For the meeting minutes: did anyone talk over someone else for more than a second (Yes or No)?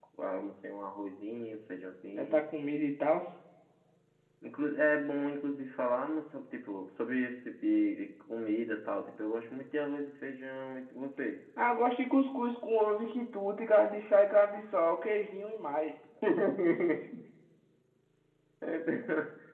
No